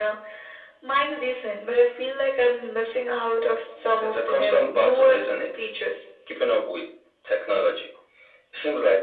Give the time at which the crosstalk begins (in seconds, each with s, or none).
4.0 s